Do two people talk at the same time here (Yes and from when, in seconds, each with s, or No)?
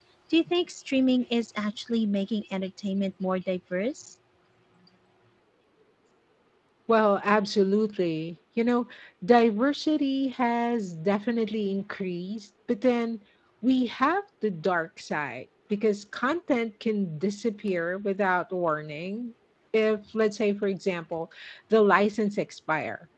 No